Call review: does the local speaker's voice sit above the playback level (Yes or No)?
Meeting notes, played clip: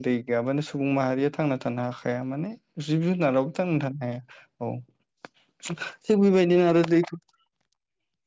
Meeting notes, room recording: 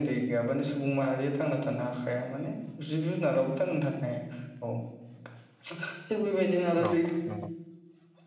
No